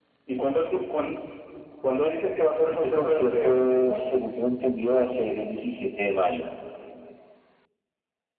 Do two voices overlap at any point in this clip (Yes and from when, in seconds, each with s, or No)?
Yes, from 2.7 s